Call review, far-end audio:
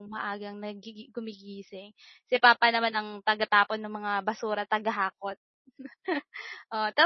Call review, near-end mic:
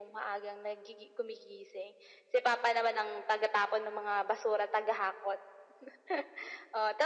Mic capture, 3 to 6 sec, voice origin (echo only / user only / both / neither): echo only